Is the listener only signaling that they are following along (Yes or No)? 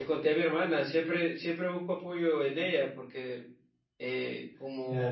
No